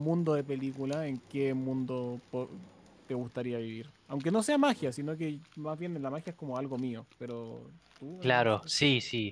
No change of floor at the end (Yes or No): No